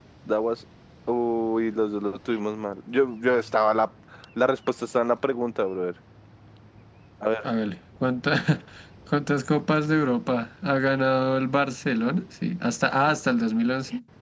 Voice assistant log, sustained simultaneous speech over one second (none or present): none